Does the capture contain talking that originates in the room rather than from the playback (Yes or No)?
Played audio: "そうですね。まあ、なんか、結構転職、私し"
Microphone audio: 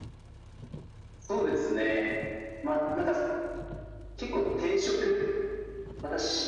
No